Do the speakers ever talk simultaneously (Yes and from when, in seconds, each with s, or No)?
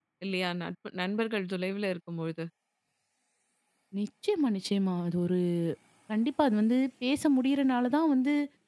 No